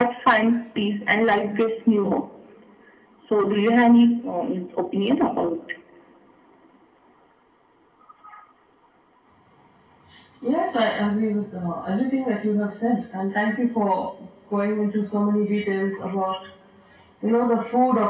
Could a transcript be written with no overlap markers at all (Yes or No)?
Yes